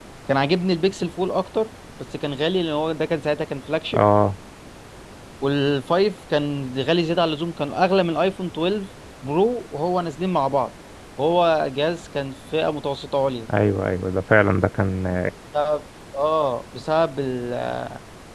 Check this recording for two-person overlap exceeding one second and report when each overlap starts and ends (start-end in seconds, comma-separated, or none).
none